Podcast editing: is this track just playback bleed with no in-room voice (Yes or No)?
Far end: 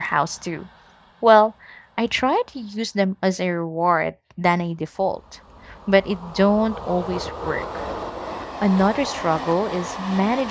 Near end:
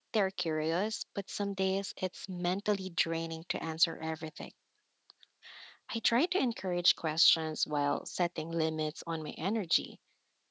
No